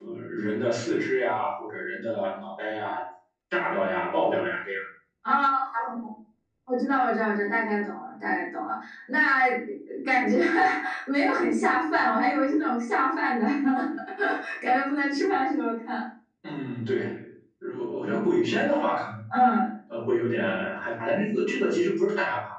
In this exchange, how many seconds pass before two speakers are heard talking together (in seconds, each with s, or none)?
none